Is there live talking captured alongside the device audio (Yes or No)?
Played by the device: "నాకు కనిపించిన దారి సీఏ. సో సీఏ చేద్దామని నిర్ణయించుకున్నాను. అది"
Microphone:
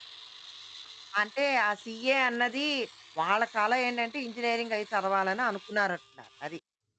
Yes